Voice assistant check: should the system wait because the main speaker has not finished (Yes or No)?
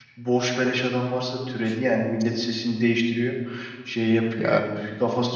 Yes